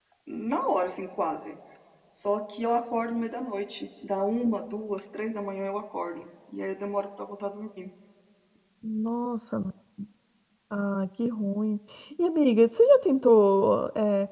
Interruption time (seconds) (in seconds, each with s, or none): none